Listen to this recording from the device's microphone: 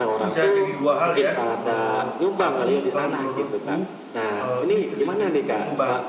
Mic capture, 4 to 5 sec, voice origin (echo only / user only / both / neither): both